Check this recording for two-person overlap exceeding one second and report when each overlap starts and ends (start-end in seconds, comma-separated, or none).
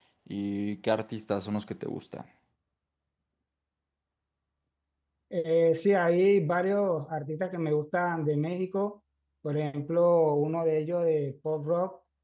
none